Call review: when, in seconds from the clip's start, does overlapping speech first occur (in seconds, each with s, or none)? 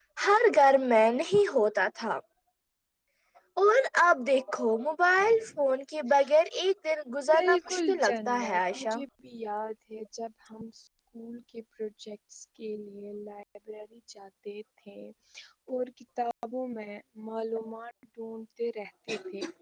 7.3 s